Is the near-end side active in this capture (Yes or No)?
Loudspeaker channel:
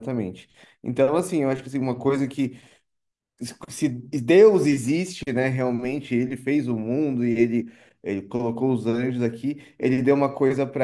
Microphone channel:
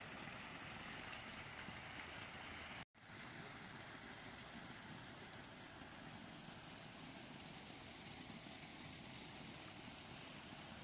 No